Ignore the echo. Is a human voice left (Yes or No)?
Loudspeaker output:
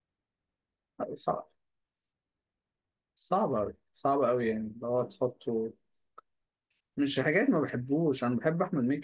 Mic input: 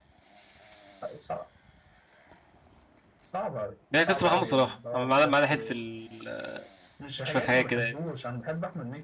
Yes